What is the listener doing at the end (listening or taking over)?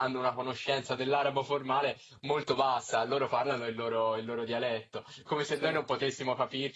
listening